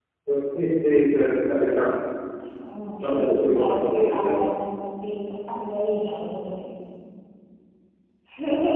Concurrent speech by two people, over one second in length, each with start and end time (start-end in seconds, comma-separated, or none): 3.0-4.5